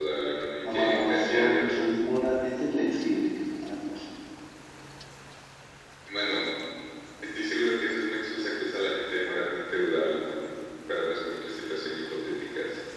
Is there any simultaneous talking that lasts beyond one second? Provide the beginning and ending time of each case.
0.6-1.8

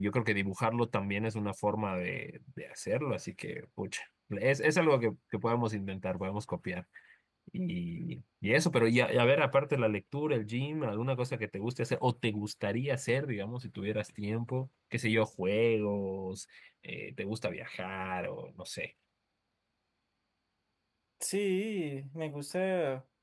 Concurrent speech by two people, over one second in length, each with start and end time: none

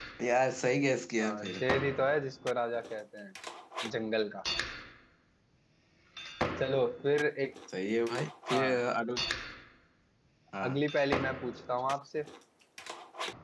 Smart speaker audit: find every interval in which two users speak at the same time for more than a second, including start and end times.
none

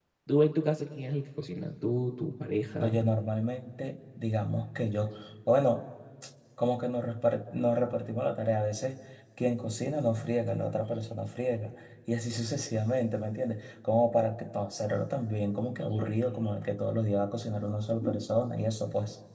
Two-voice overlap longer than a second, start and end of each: none

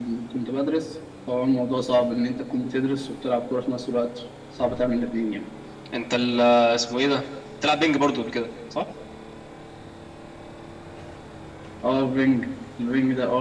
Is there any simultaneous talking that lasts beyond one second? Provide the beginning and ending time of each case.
none

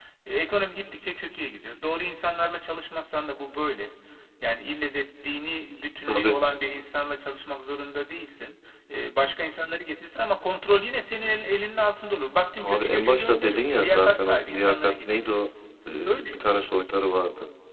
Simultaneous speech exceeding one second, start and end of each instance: 12.6-15.5

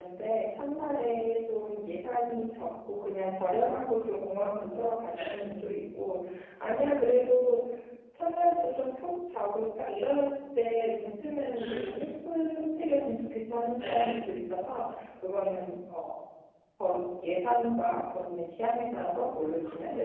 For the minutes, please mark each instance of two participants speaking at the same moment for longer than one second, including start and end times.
none

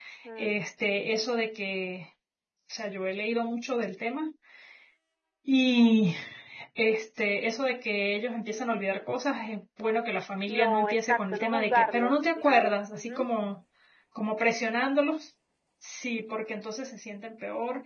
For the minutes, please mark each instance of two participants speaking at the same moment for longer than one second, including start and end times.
10.5-13.2

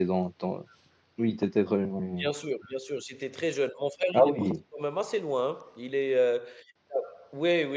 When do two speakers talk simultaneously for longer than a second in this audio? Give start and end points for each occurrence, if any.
none

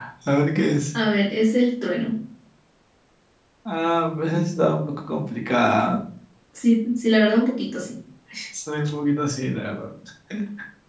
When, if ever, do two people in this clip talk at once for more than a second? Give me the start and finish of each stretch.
none

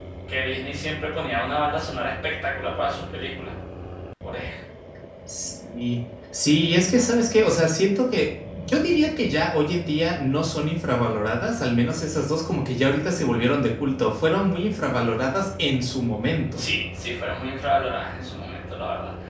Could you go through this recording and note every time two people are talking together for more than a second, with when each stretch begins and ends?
none

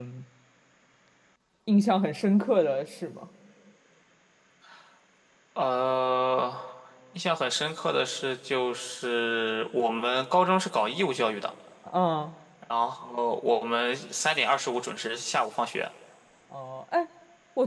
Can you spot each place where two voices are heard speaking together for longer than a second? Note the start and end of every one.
none

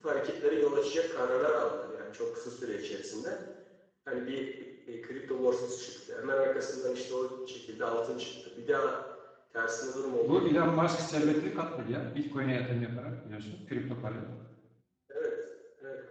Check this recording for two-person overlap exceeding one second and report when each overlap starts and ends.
none

